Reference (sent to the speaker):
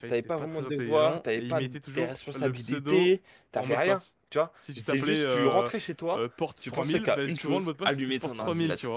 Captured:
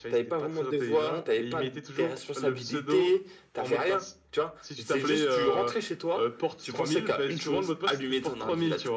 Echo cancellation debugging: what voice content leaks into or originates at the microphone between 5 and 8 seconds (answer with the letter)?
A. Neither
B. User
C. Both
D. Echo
D